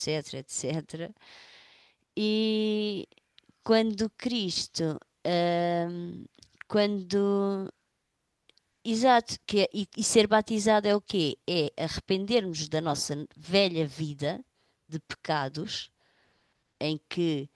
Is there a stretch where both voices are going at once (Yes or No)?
No